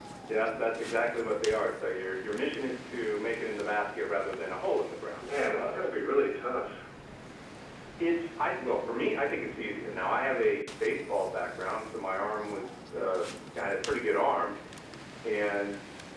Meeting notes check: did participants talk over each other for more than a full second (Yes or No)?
No